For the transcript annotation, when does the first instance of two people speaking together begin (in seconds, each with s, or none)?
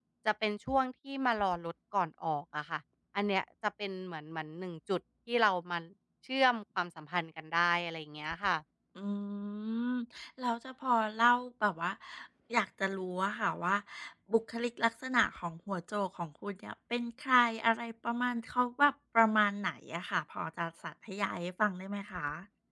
none